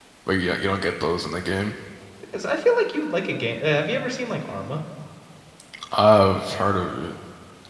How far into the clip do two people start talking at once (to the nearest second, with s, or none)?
none